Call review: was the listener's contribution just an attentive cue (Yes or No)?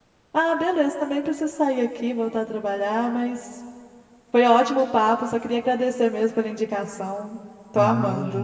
No